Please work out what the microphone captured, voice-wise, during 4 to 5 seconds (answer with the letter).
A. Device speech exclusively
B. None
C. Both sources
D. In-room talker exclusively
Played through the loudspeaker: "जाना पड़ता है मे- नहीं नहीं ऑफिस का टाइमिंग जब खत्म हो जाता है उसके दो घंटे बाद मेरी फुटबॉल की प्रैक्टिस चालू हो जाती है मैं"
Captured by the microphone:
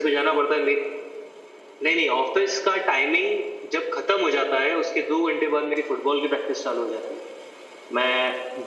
A